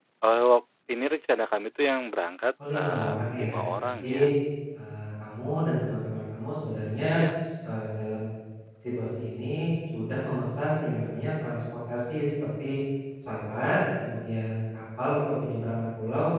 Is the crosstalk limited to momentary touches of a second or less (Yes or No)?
No